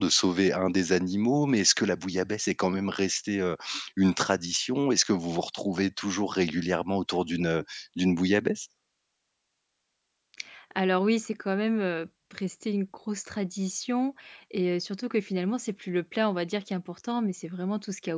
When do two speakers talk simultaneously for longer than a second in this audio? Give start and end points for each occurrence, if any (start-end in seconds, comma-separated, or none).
none